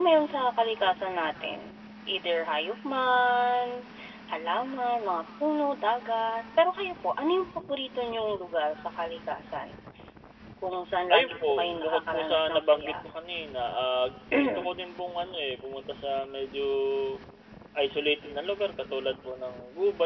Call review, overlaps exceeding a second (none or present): present